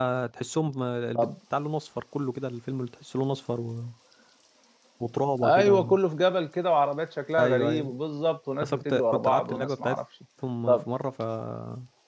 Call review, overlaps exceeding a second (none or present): present